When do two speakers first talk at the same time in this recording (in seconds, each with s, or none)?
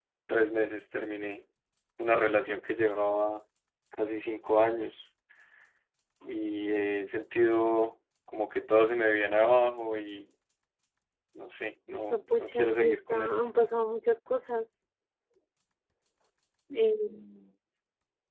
11.9 s